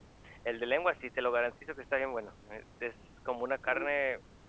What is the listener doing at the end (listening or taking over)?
listening